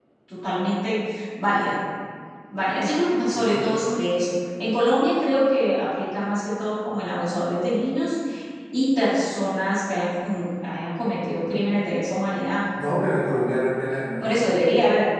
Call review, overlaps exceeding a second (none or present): none